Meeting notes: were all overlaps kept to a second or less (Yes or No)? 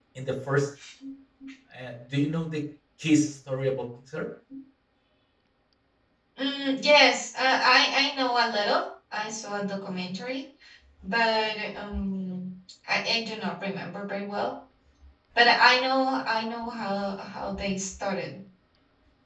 Yes